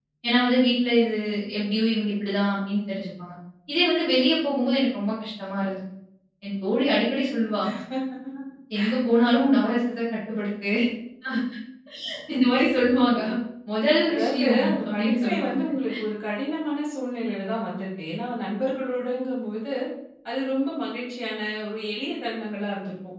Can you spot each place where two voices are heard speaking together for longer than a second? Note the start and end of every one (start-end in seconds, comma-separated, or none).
14.1-15.6